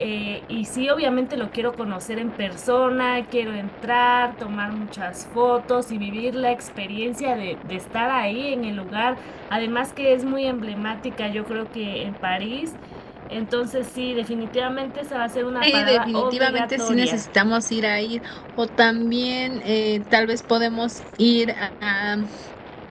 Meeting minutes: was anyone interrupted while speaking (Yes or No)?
Yes